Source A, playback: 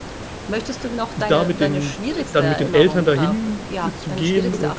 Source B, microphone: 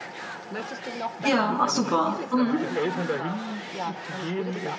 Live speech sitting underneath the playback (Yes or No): No